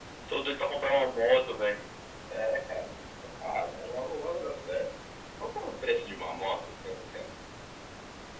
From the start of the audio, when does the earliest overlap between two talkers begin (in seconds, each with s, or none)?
none